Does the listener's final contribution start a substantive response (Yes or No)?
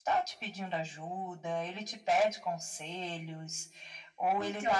Yes